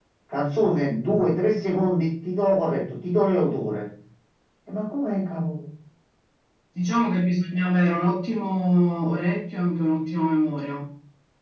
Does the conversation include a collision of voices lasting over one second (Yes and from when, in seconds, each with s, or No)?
No